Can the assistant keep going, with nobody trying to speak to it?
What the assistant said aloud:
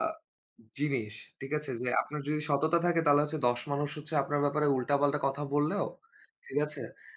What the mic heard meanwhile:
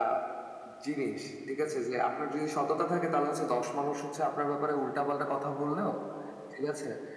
Yes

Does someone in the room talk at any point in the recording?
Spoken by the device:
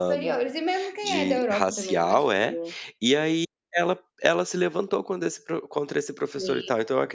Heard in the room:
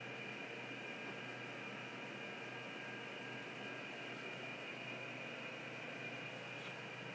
No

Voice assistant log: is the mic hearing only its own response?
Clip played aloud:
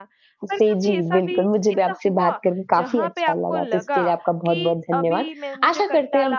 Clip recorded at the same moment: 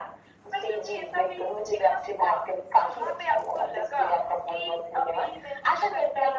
Yes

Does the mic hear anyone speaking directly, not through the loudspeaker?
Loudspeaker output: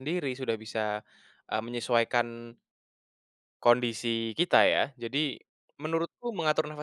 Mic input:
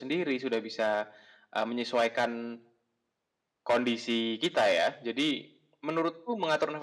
No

